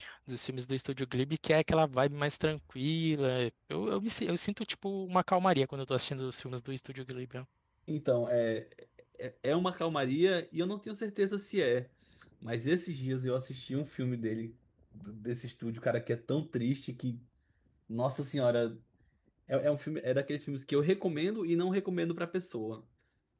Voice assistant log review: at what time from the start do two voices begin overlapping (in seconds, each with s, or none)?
none